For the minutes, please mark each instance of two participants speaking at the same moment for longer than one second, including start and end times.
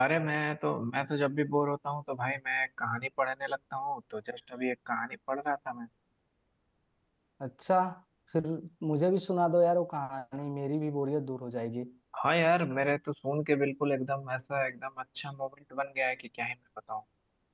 none

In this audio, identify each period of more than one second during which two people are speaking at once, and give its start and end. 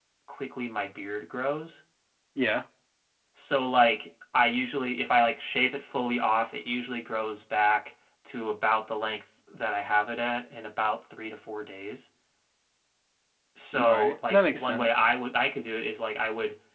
13.8-15.1

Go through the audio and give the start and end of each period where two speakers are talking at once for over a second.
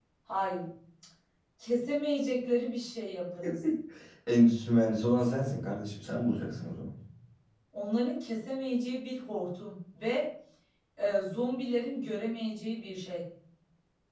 none

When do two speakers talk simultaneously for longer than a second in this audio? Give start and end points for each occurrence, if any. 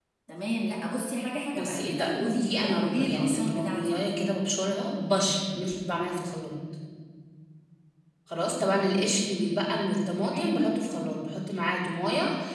1.5-4.2

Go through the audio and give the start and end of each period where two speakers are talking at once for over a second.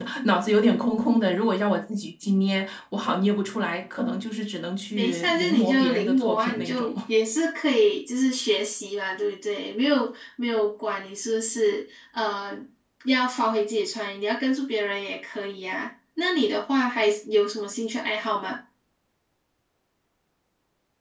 5.0-6.9

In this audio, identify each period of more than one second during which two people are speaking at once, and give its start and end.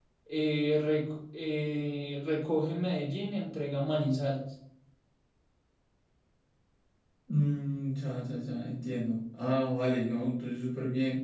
none

